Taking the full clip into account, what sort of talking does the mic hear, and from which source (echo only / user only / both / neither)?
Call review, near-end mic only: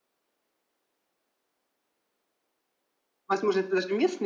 user only